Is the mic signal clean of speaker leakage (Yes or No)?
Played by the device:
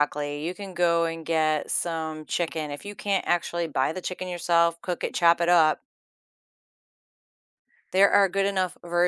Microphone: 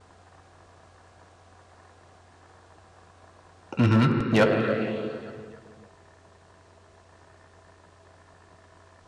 Yes